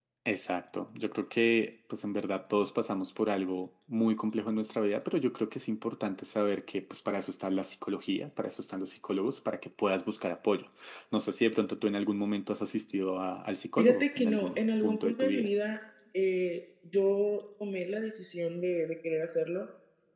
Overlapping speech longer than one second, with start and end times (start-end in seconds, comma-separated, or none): 13.8-15.5